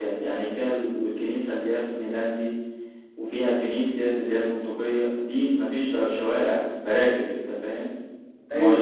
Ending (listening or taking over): taking over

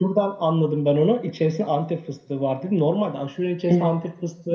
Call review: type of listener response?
listening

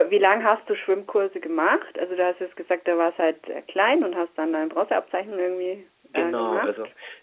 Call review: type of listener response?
taking over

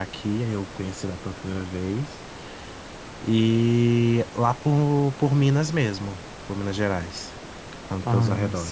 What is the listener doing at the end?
taking over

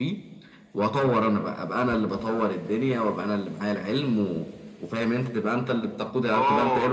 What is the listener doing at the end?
taking over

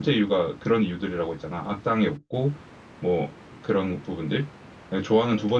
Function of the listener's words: listening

